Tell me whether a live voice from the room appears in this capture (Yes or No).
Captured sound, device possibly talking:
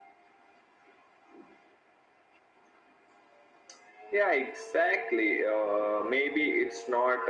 No